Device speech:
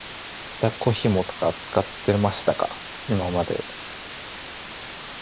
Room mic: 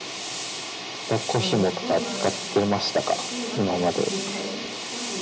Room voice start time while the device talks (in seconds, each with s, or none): 1.3 s